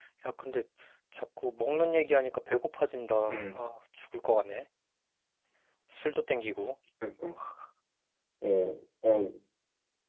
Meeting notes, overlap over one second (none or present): none